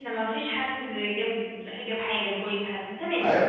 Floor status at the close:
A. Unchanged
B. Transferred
B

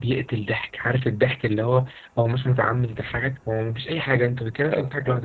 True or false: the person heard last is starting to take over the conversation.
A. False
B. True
A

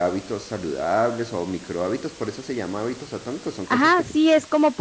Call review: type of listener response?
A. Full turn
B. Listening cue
A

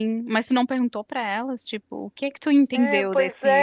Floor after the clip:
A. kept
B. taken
B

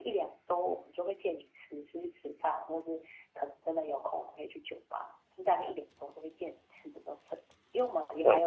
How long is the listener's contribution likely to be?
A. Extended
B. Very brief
B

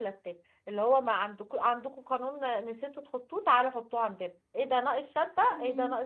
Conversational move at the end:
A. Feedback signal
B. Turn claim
A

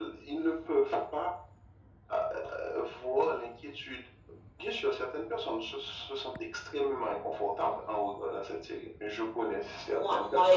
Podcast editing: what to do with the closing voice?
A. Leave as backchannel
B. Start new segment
B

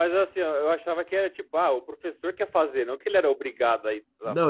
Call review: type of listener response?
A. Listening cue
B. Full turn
B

